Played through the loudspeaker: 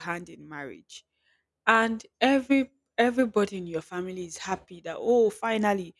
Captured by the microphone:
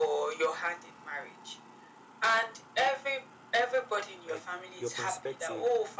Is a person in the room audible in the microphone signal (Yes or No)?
Yes